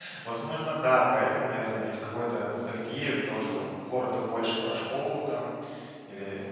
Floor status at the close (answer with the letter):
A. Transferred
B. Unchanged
B